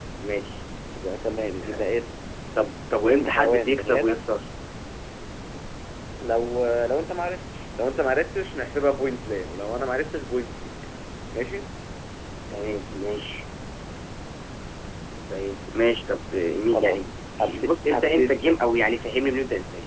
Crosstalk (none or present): present